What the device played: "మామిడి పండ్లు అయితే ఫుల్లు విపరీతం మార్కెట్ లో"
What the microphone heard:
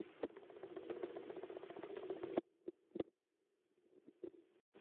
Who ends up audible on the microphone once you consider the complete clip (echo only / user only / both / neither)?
neither